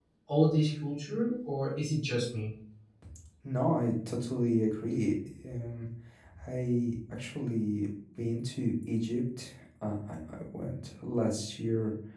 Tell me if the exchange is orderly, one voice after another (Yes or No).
Yes